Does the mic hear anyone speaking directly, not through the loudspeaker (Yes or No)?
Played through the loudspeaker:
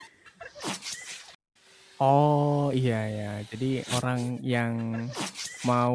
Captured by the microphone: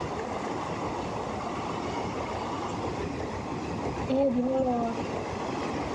Yes